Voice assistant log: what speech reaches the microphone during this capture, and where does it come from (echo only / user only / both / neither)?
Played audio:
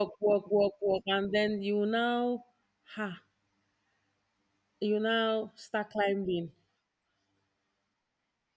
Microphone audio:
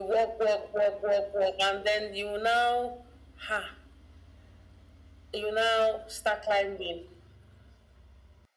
echo only